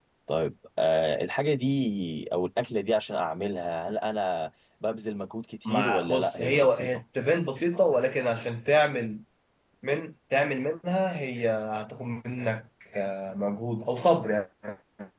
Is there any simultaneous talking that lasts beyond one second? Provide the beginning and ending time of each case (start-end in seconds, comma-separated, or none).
5.7-7.0